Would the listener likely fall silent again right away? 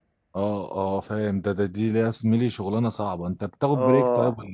No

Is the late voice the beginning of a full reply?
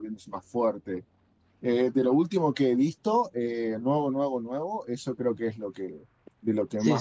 Yes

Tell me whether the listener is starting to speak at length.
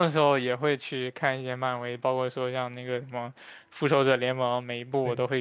No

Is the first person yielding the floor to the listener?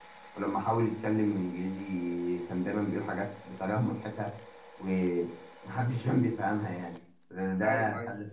No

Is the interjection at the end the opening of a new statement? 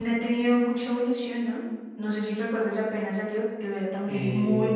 No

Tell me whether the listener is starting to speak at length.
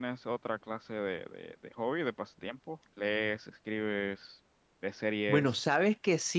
Yes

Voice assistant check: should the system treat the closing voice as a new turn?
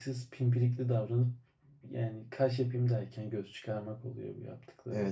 Yes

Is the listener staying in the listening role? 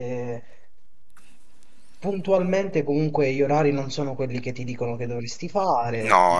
No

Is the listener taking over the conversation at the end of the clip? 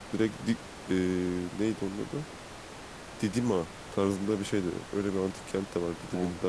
No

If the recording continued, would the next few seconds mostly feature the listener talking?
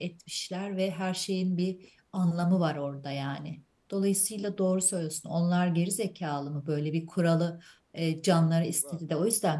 No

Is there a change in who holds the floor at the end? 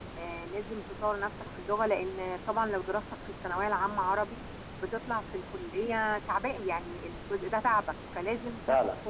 No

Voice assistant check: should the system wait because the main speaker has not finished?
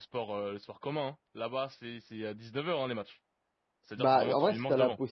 No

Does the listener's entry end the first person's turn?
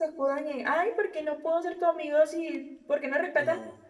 No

